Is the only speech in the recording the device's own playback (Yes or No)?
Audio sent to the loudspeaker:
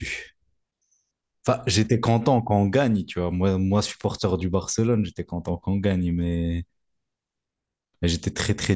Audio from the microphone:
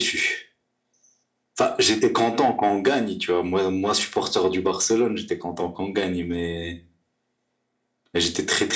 Yes